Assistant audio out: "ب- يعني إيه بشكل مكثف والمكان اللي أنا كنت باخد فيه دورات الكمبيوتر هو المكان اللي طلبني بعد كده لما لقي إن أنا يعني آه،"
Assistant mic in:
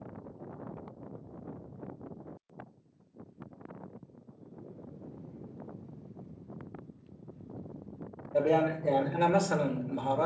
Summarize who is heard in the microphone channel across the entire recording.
user only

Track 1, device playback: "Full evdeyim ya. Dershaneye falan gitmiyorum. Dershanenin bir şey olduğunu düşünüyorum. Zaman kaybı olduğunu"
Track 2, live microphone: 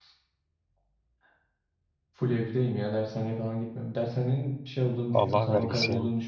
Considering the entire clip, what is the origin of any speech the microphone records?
both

